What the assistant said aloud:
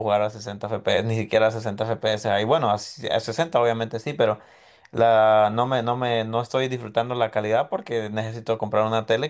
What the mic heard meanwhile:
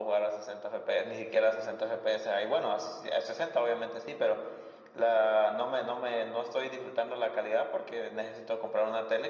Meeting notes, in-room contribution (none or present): none